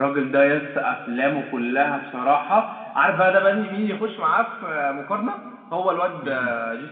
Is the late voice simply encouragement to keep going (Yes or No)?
Yes